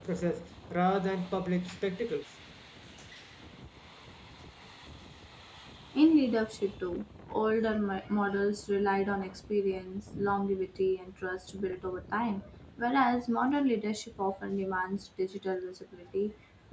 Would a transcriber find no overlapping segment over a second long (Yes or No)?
Yes